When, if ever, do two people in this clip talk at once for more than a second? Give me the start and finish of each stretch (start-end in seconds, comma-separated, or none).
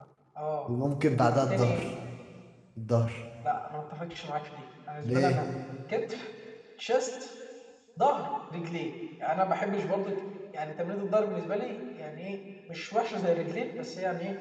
none